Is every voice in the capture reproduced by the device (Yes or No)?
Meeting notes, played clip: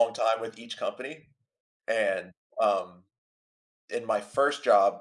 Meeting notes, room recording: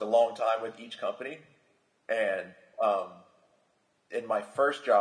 Yes